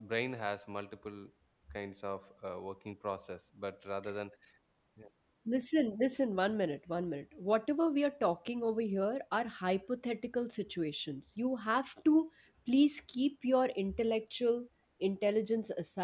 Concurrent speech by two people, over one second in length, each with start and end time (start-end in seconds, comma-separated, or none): none